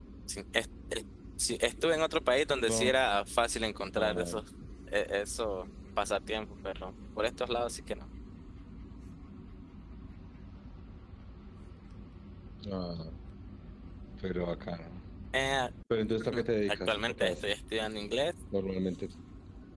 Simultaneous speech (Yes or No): Yes